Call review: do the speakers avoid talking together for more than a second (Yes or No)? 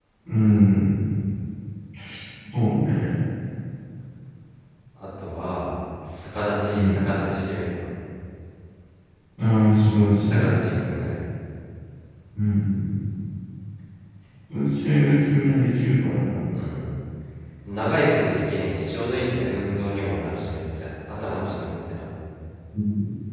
Yes